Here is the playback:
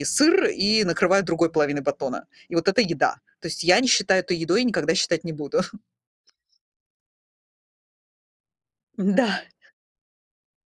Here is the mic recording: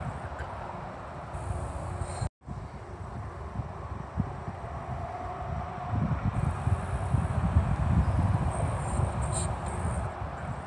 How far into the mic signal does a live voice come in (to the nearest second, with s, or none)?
none